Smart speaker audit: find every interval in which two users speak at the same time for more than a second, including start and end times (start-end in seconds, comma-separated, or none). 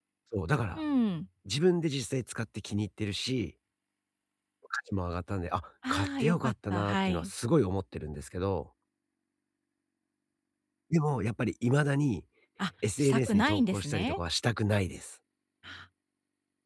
5.9-7.3, 13.0-14.2